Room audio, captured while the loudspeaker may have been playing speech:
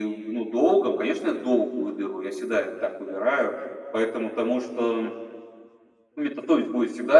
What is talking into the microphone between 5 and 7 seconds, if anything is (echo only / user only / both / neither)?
echo only